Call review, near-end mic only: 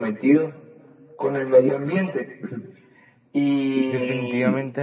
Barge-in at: 3.9 s

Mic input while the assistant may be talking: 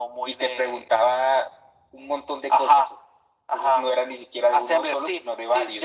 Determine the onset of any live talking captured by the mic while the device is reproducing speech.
none

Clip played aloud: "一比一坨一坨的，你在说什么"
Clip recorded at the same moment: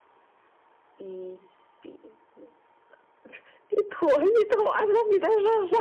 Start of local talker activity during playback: none

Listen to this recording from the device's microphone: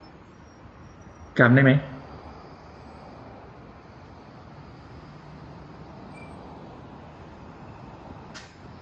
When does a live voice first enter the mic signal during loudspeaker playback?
1.4 s

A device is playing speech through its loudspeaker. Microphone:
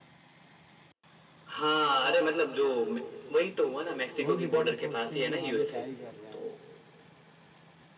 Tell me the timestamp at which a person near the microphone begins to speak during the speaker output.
4.2 s

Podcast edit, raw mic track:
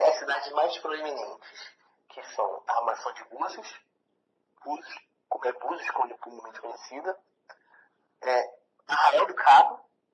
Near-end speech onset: none

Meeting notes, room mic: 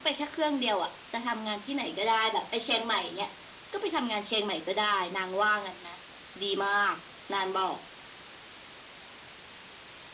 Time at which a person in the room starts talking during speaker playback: none

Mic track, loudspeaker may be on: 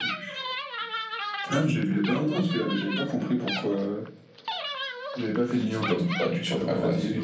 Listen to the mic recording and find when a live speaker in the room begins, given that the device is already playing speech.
5.7 s

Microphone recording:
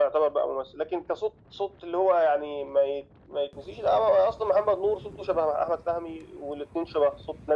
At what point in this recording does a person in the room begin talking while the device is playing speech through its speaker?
none

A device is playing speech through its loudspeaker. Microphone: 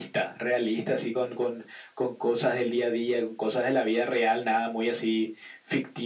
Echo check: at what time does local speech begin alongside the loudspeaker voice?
none

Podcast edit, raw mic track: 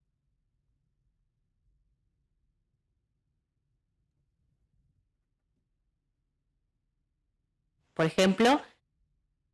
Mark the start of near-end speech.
7.9 s

